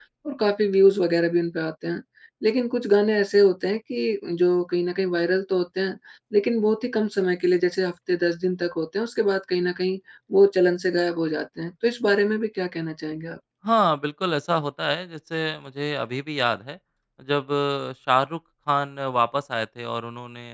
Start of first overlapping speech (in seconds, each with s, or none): none